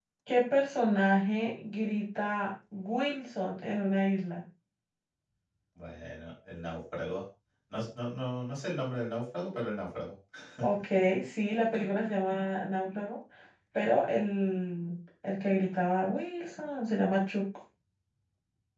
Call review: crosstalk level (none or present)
none